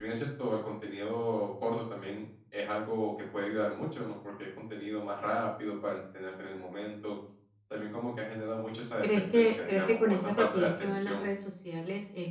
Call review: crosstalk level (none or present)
present